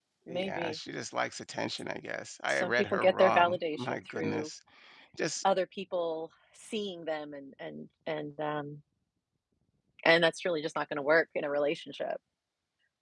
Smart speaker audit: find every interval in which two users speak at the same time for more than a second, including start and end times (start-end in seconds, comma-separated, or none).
2.5-4.5